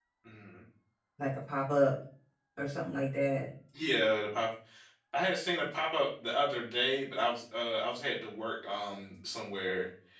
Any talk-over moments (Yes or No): No